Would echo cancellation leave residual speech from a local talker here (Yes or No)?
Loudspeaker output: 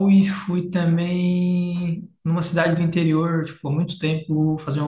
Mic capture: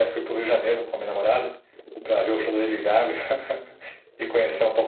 Yes